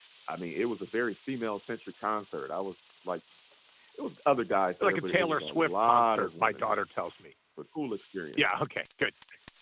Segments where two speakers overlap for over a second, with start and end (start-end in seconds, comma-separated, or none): 4.8-6.8